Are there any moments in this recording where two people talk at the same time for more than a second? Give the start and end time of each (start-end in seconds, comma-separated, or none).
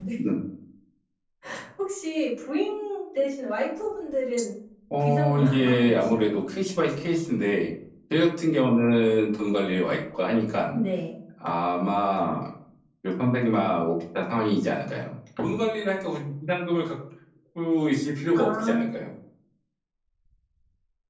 5.0-6.3